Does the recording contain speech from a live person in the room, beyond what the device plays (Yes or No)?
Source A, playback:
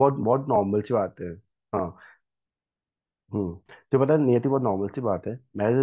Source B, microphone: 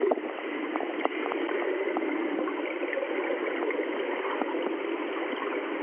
No